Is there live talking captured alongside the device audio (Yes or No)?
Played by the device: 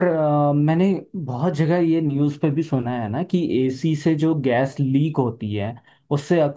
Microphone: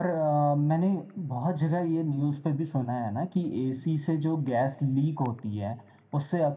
No